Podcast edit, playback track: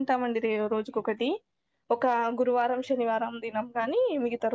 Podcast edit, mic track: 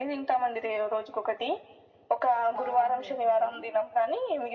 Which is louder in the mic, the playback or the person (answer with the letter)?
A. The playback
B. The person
A